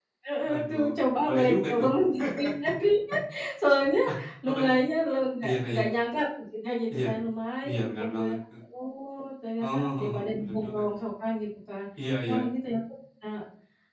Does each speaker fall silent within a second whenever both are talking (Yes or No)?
No